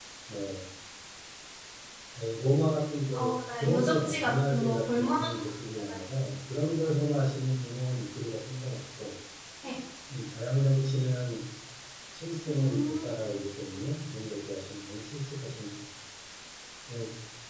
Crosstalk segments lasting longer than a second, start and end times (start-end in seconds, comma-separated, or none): 3.6-5.3